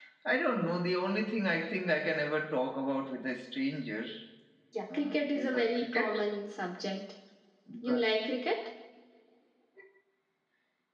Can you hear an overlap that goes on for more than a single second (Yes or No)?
Yes